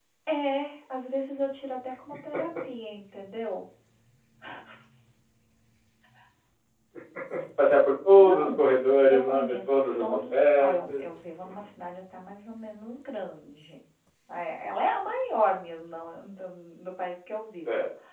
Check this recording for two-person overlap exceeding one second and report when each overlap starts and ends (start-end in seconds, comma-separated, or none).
9.1-11.0